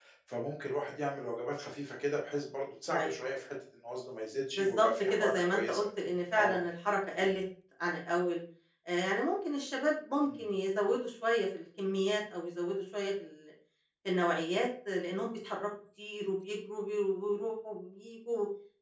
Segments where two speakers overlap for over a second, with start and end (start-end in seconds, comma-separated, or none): 4.6-5.8